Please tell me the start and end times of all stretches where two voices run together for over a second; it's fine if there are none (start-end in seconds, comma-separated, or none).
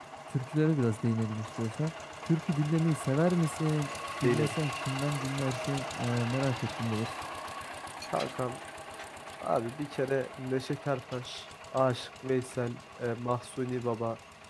none